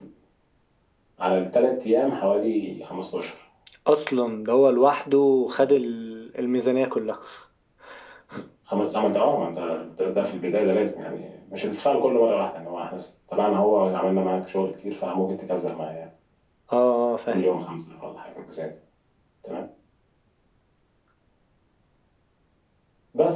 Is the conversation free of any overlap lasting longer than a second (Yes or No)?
Yes